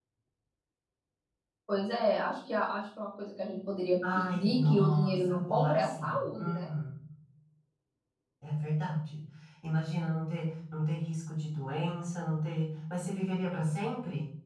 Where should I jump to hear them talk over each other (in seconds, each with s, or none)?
4.0 s